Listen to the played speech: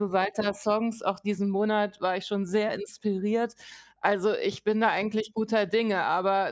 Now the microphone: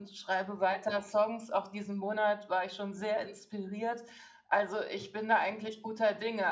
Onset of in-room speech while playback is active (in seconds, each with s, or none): none